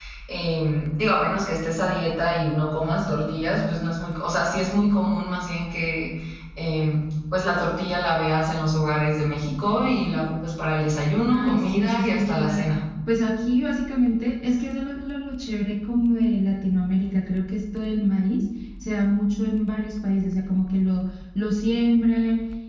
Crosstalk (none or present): present